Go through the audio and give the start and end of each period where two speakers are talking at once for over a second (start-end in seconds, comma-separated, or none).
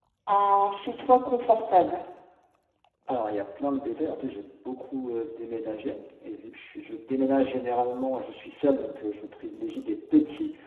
none